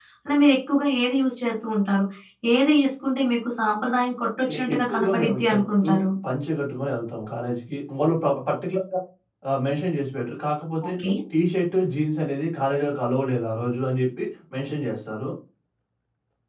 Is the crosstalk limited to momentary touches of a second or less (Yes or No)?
No